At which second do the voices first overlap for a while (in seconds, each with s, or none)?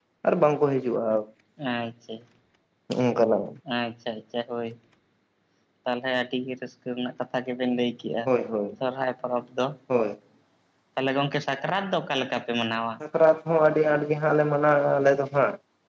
none